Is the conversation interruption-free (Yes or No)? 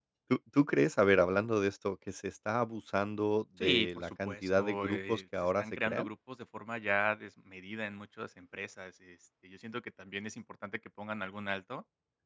No